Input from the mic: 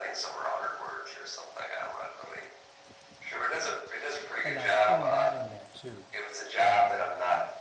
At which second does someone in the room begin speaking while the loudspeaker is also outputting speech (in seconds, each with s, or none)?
4.4 s